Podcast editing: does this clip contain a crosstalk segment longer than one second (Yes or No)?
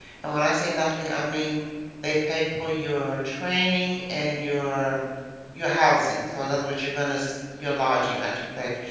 No